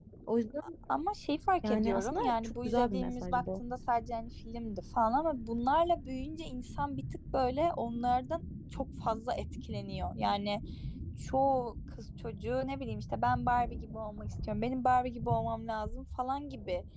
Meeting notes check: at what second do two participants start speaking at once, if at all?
2 s

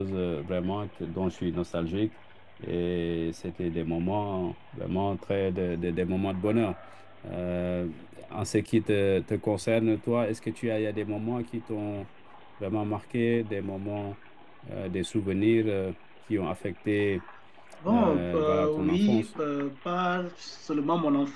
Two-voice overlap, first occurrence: 18 s

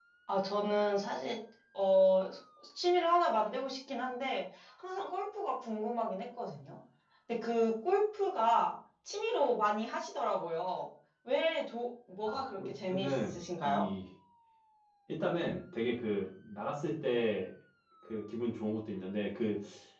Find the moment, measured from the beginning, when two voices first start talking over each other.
12 s

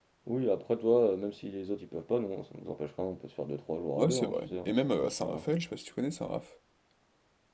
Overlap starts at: 4 s

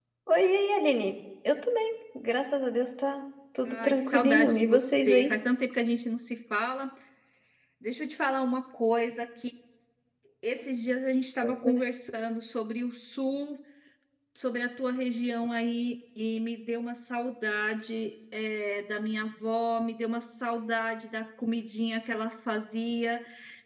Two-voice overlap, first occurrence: 4 s

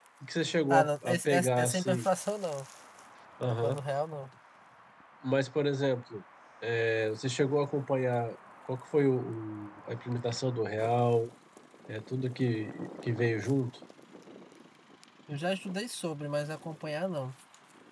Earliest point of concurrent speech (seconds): 1 s

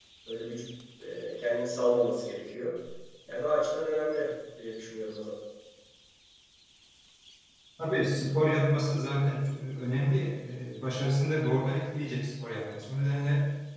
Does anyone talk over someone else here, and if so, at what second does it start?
none

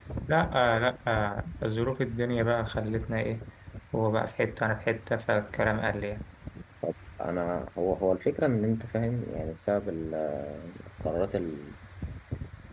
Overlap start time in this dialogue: none

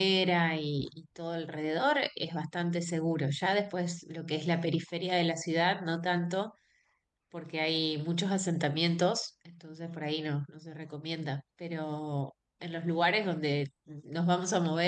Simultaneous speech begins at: none

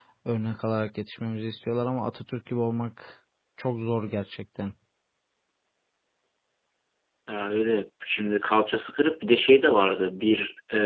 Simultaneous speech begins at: none

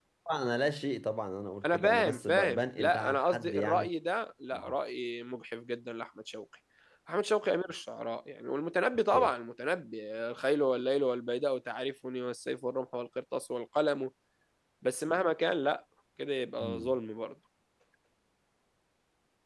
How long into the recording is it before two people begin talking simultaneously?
2 s

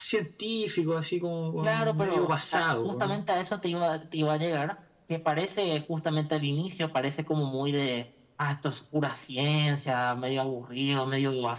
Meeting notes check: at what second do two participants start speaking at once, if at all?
2 s

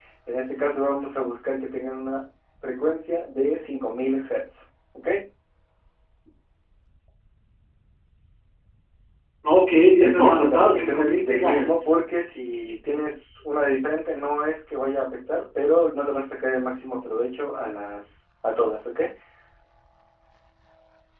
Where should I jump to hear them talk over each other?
10 s

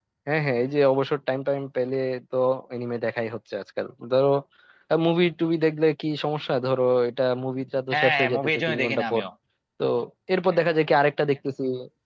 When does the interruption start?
8 s

